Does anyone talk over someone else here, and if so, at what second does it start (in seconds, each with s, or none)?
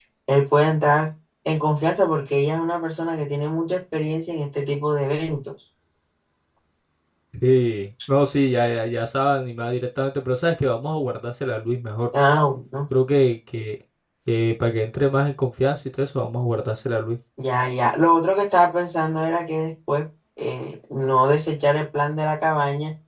none